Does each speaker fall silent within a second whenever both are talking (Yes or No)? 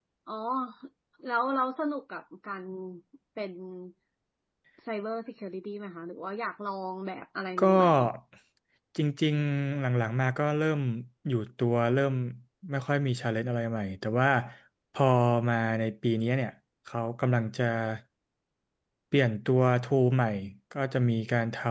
Yes